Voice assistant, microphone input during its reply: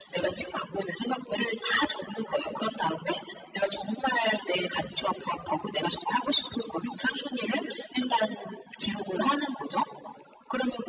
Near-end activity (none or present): none